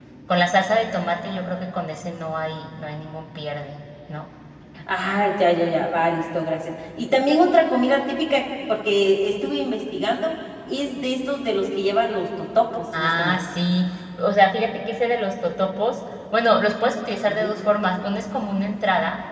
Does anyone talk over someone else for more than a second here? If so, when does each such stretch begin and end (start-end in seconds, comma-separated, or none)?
none